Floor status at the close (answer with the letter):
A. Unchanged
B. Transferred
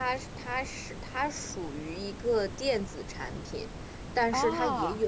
A